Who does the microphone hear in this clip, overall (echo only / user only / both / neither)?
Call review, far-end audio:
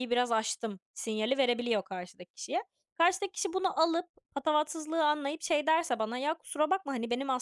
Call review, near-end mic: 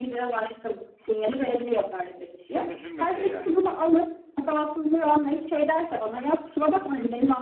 both